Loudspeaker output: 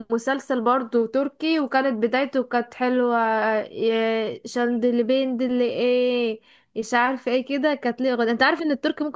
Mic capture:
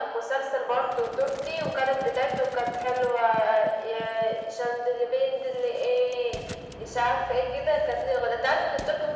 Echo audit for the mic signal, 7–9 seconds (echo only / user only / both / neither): echo only